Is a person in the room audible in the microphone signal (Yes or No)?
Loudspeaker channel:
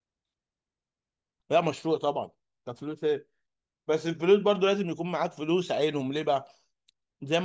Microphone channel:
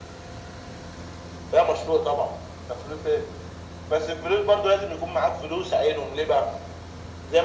No